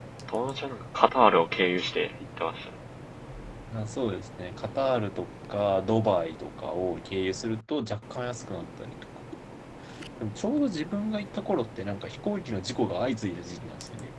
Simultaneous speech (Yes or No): No